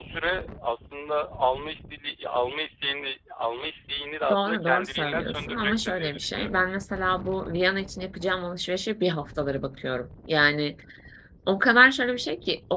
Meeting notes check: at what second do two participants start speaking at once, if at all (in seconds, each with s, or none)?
4.2 s